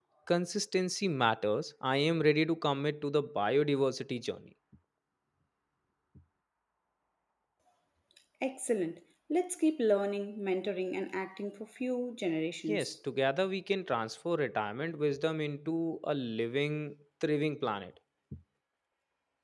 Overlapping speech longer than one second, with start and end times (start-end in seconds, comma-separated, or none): none